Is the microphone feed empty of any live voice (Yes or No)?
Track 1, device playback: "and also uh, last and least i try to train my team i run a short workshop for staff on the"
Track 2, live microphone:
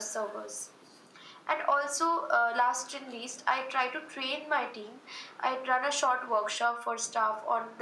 Yes